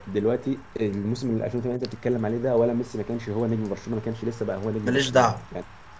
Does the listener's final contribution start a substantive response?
No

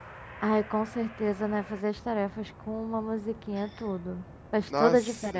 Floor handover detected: Yes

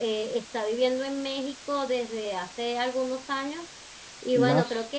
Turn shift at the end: No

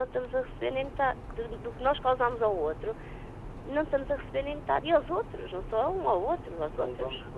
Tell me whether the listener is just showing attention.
No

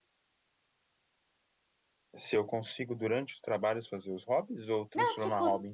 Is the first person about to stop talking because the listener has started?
Yes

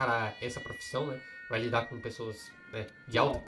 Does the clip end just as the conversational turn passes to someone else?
Yes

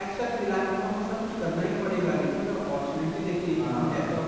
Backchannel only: Yes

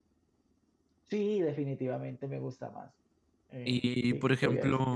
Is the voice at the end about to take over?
Yes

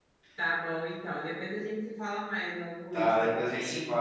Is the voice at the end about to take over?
Yes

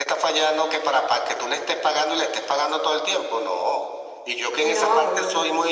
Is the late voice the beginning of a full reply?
No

